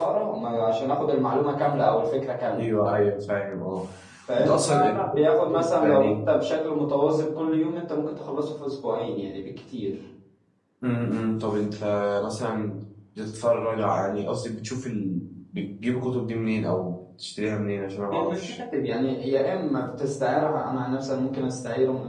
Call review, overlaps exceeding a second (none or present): present